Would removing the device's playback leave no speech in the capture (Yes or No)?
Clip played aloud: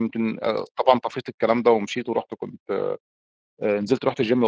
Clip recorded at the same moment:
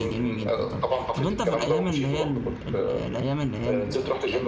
No